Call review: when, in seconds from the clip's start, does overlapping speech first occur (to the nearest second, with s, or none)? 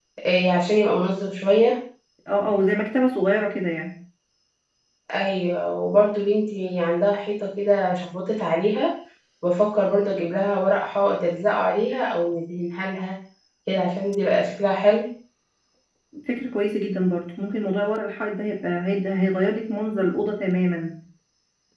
none